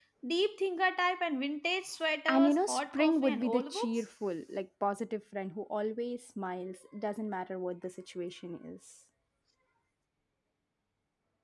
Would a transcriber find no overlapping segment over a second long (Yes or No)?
No